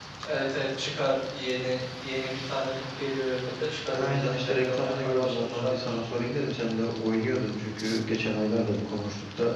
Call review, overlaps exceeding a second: present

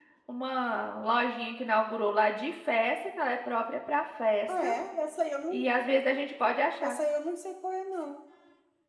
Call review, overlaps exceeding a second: none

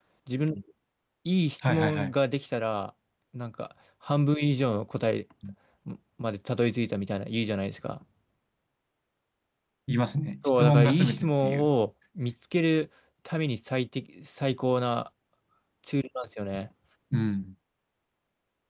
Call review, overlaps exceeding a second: present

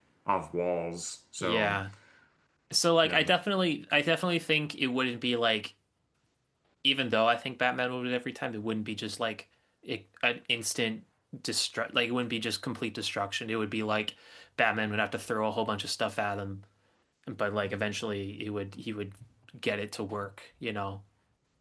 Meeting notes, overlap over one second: none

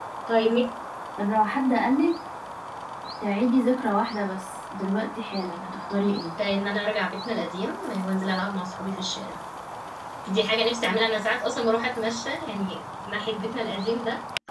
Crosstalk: none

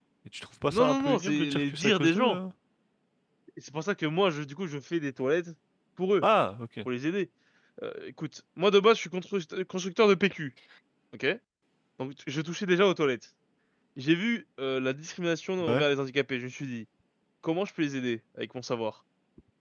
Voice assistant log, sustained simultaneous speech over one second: present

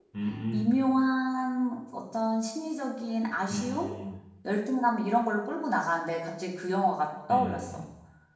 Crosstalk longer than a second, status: none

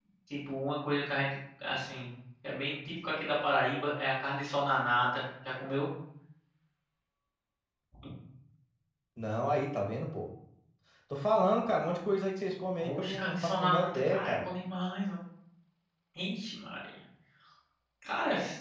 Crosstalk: present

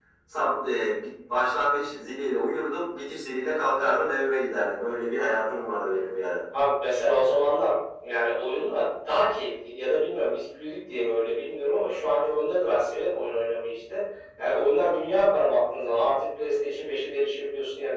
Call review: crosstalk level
none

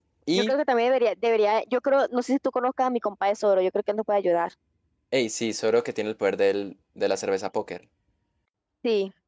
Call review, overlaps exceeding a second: none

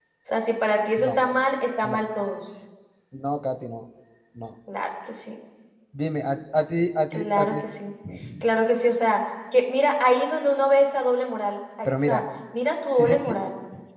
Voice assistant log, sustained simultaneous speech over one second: none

